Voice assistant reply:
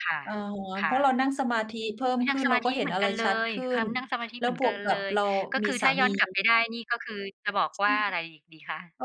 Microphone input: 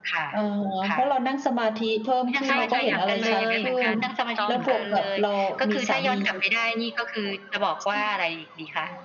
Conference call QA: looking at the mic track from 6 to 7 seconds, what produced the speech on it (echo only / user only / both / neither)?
echo only